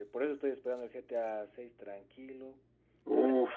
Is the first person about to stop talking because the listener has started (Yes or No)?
No